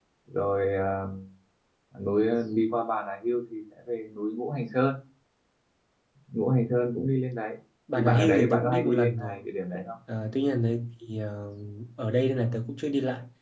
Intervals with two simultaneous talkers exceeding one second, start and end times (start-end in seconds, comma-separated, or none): 8.0-9.4